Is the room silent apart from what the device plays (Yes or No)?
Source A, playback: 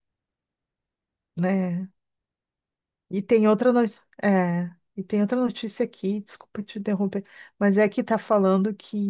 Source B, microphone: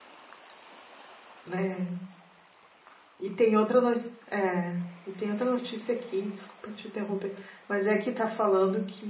Yes